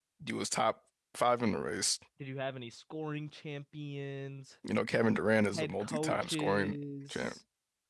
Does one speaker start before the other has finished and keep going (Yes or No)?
Yes